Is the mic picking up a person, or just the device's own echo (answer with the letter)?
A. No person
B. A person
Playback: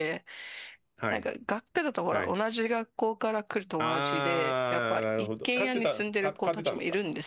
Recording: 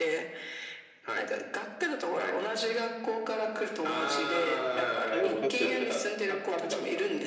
B